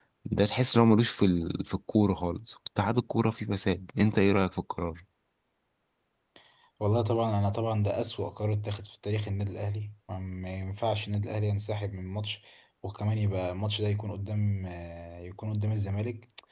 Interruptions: none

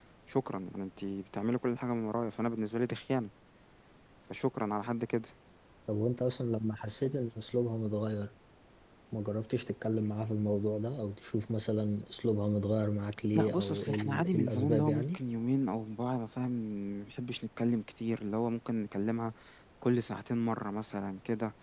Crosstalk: present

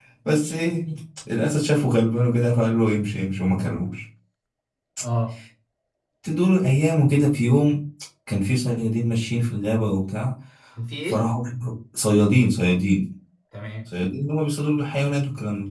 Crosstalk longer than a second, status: none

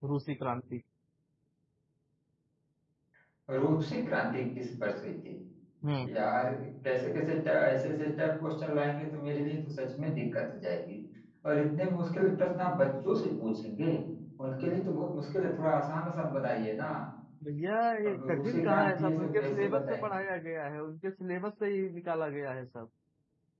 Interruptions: present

